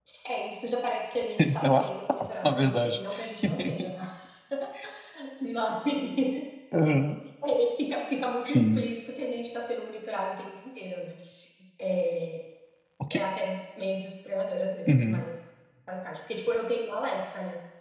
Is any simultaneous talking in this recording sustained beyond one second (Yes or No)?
Yes